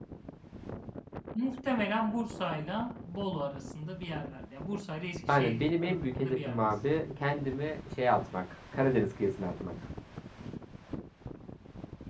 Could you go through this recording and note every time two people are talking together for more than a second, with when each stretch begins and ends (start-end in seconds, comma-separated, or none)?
5.3-6.7